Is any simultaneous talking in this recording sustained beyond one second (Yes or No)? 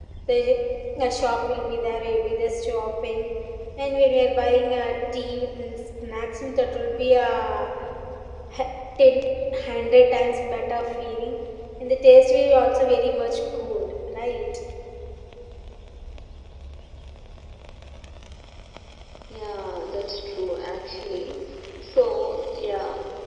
No